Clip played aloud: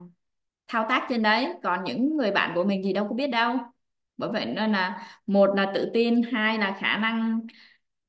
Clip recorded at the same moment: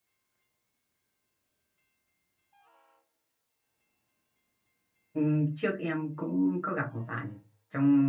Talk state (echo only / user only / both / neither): user only